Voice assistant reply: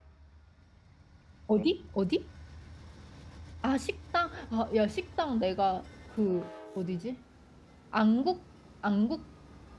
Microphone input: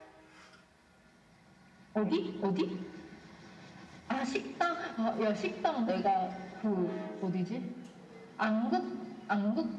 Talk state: echo only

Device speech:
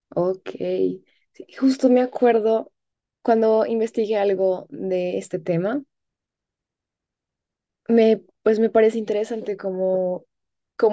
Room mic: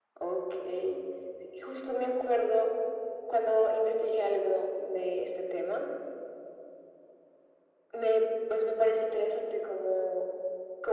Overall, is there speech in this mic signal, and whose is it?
echo only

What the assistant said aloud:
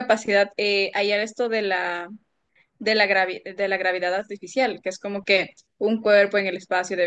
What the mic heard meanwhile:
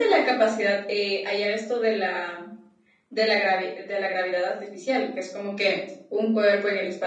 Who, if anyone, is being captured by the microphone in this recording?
echo only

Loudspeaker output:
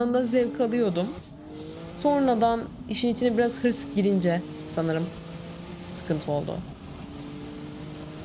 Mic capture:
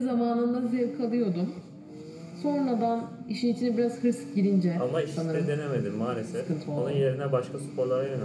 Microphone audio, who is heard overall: both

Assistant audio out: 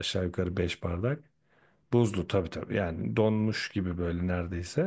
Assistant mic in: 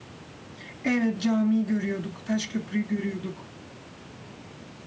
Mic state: user only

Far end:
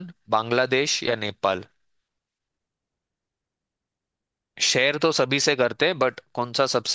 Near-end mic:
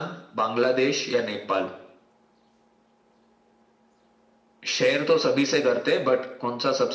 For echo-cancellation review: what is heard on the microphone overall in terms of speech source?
echo only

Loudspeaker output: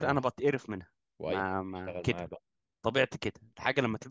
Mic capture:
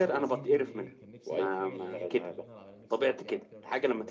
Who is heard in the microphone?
both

